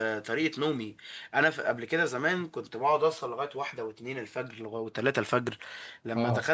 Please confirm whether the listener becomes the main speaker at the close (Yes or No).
No